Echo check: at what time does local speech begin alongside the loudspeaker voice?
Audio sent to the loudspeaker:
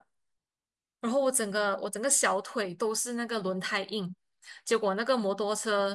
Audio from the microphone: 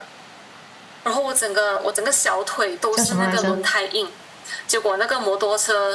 2.9 s

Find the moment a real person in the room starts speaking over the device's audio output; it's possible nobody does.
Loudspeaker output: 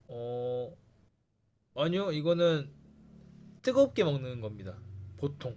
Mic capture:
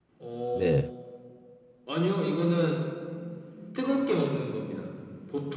0.5 s

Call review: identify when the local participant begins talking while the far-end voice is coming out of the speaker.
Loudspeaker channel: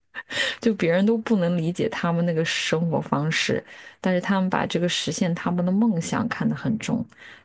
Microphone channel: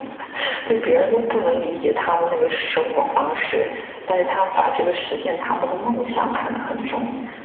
none

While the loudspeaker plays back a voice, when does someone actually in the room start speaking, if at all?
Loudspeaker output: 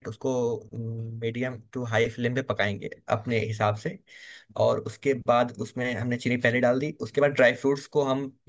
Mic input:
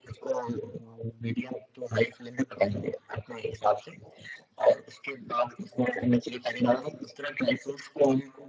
none

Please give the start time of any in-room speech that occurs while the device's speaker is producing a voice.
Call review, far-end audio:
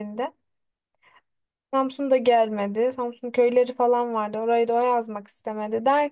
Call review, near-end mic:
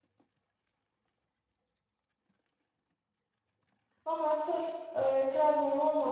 4.0 s

